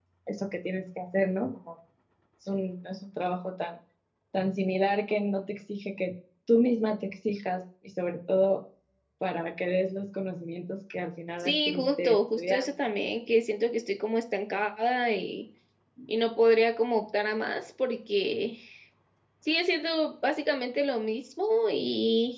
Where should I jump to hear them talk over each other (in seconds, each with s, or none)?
11.4 s